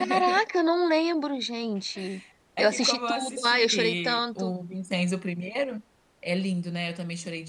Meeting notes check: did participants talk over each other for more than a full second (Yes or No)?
Yes